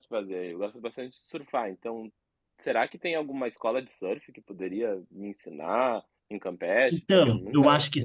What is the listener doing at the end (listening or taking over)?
taking over